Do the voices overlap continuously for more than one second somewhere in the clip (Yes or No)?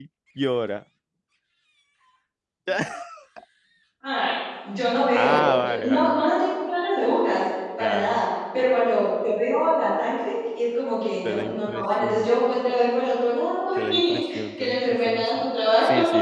Yes